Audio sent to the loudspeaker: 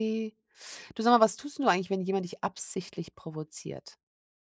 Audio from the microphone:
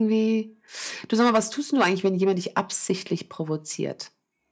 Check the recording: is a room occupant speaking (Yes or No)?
No